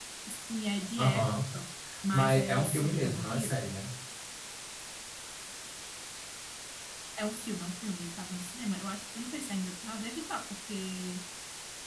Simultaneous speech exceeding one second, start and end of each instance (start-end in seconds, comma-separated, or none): 2.1-3.6